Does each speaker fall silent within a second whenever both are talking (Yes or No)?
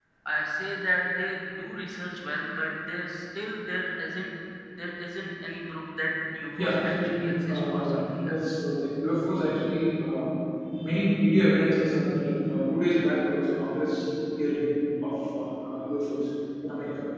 No